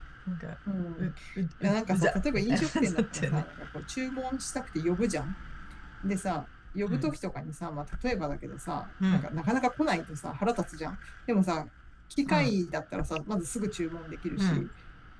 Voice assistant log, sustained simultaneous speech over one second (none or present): present